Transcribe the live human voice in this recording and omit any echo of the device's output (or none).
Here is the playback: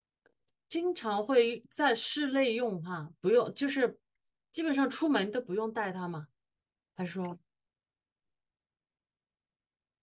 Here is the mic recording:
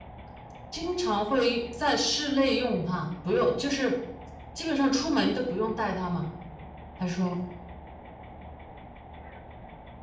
none